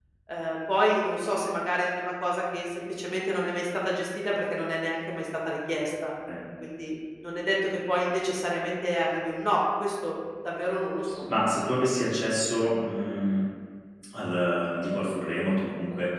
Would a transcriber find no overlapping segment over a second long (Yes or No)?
Yes